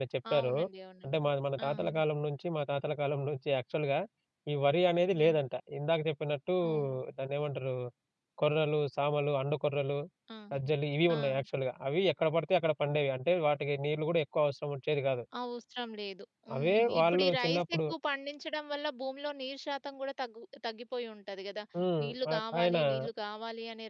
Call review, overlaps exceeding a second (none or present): present